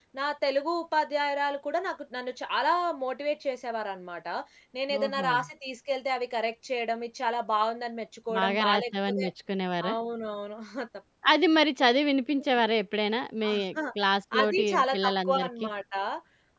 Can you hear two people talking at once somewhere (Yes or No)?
Yes